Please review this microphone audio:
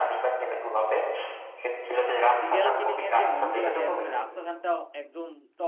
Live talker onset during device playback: 2 s

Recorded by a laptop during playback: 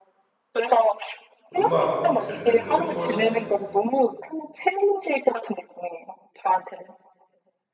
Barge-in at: 2 s

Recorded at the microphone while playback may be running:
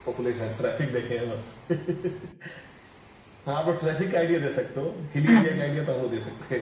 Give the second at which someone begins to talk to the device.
5 s

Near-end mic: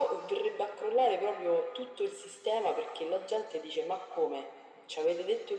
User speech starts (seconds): none

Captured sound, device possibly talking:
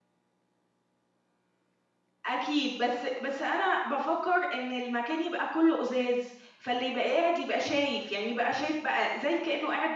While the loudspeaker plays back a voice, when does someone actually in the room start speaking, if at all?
2 s

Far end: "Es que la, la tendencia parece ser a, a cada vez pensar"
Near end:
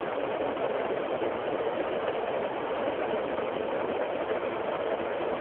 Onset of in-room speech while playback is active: none

